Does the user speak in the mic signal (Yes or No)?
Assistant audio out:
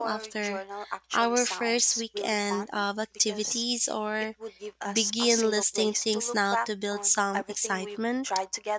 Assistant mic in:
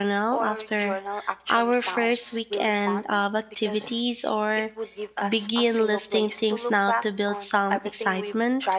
No